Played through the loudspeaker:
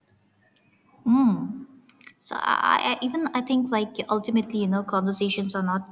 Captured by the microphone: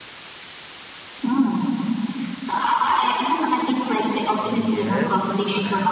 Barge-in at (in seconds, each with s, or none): 4.4 s